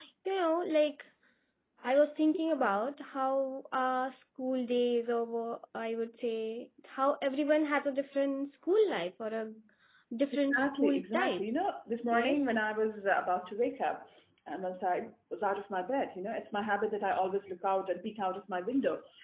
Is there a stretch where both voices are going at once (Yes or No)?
Yes